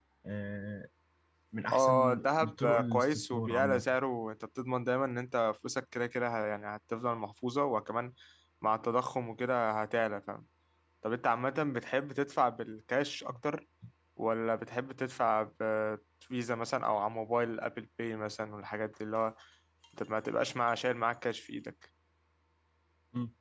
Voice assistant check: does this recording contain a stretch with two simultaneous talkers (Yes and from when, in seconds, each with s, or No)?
Yes, from 1.7 s